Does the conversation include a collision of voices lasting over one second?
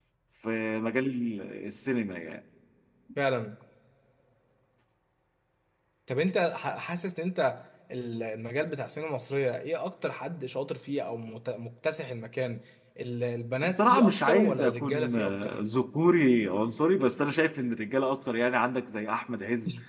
Yes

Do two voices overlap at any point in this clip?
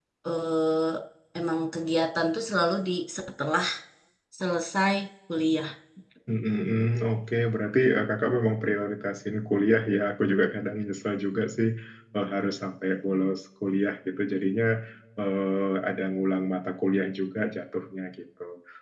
No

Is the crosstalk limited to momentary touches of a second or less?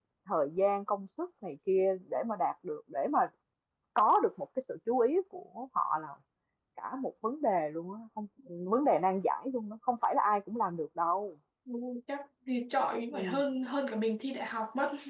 Yes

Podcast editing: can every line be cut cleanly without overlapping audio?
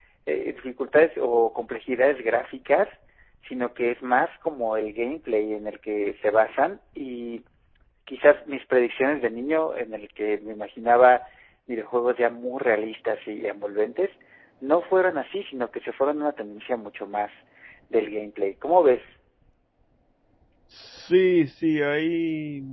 Yes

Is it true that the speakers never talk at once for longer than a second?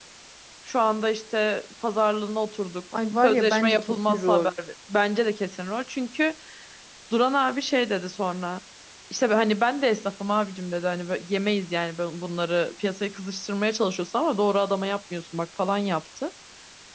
No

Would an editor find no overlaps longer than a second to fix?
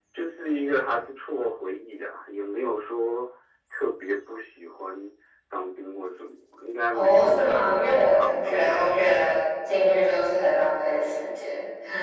No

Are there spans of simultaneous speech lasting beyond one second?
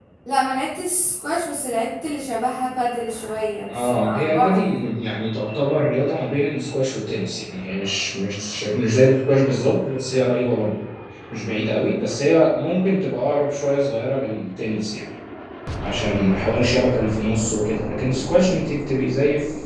Yes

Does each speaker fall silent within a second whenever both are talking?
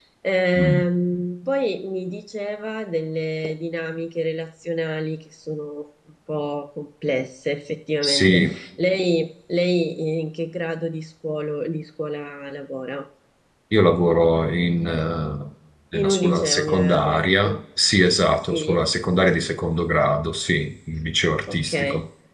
No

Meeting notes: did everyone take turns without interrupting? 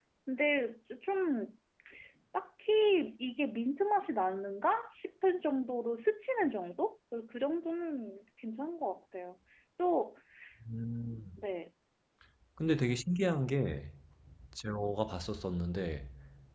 Yes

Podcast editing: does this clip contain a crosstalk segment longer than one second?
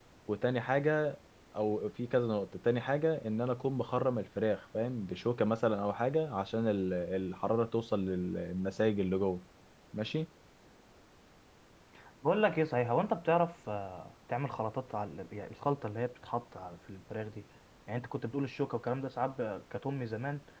No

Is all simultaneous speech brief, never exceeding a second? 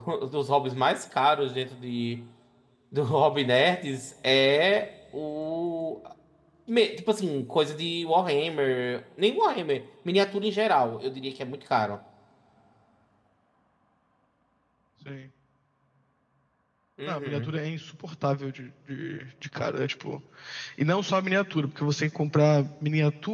Yes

